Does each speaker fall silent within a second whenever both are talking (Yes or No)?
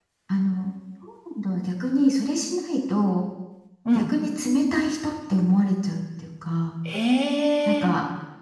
Yes